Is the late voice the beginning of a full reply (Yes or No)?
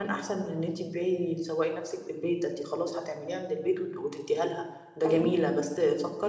No